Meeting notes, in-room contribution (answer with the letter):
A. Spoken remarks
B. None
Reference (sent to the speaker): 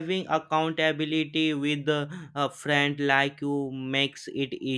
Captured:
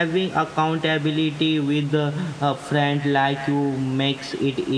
B